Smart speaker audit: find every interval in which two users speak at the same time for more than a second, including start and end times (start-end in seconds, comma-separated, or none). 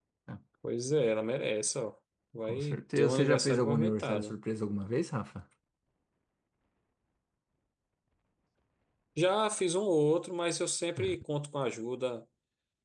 2.4-4.3